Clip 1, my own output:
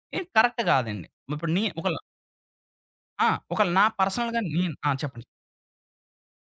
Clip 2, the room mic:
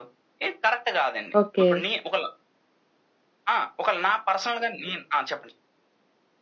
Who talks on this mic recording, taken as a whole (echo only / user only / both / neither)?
both